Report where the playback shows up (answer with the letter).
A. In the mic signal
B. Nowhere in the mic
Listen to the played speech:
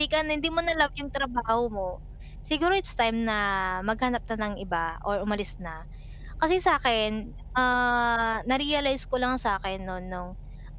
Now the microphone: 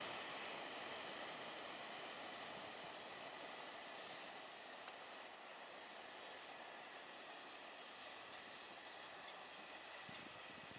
B